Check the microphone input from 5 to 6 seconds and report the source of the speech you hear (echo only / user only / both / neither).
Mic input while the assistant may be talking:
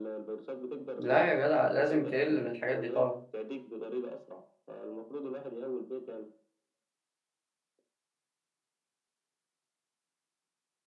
echo only